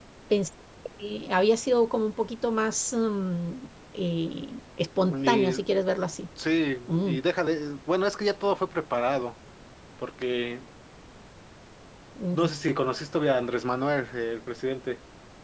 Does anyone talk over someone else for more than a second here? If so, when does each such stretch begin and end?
none

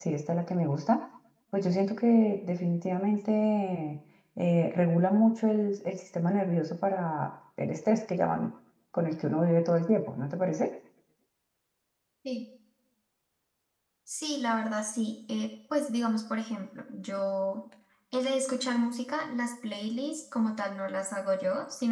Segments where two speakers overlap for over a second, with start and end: none

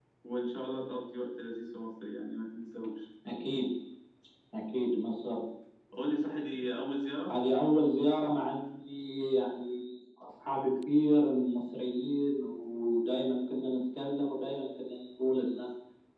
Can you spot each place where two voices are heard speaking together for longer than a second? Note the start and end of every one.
none

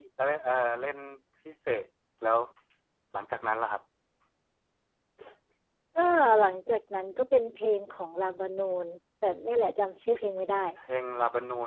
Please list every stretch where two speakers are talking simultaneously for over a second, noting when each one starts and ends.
none

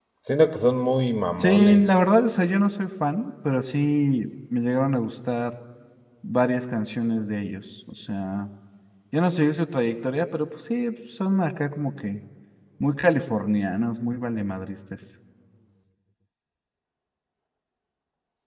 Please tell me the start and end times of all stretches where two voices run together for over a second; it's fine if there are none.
none

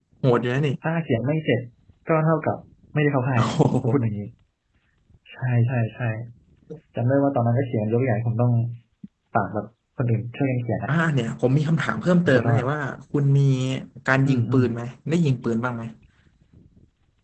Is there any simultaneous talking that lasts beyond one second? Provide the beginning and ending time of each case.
none

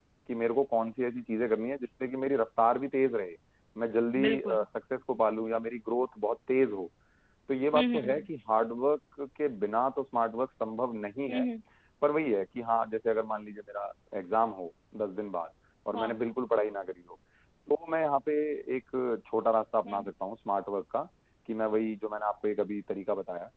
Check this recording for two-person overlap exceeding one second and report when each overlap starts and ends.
none

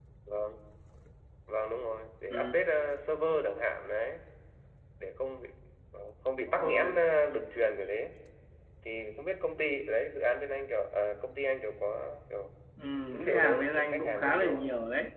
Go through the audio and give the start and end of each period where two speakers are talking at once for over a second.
13.2-14.7

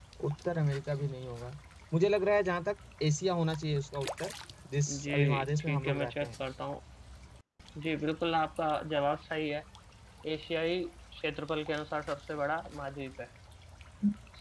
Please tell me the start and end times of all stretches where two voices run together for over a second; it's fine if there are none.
4.9-6.3

